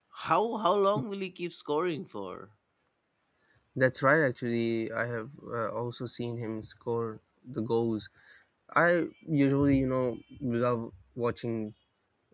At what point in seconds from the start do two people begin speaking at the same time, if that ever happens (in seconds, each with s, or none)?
none